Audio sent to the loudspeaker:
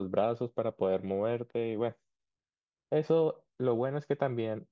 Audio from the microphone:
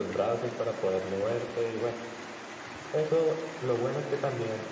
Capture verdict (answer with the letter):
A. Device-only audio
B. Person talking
A